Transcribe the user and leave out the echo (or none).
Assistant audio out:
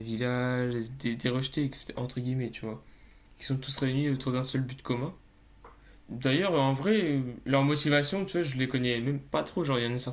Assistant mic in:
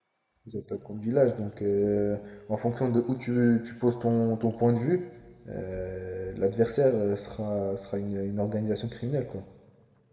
Les attaques contre village. Donc euh, en fonction de où tu, tu poses ton, ton point de vue, euh, l'adversaire euh, sera, sera une, une organisation criminelle quoi.